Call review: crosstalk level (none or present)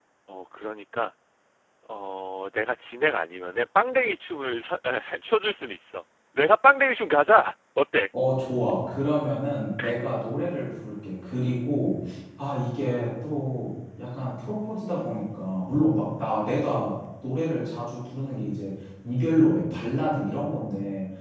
none